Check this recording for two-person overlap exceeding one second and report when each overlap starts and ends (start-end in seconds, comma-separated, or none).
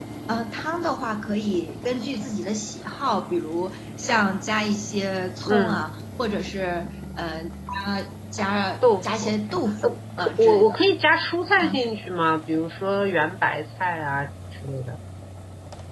8.8-10.8